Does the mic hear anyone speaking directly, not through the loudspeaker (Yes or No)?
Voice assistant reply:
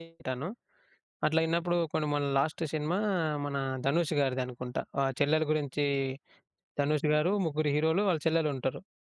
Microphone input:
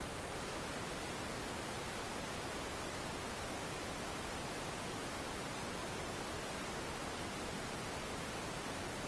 No